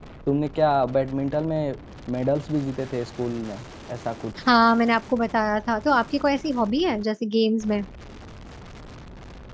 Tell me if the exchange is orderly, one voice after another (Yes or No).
Yes